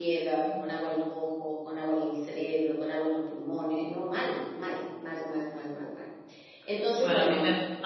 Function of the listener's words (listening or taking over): taking over